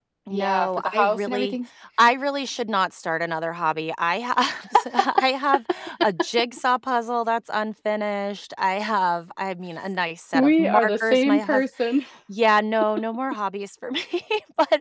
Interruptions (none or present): present